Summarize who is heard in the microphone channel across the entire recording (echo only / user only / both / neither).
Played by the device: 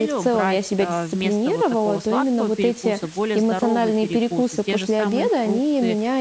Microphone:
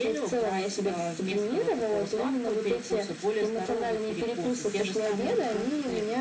echo only